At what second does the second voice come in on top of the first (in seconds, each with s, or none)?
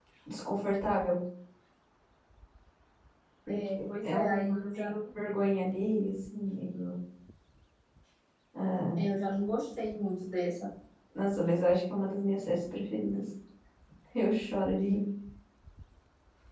3.5 s